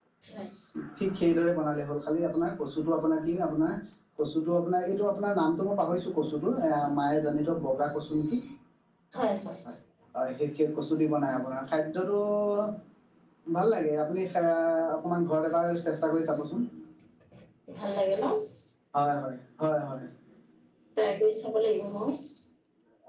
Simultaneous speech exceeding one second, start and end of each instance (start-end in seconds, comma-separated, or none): none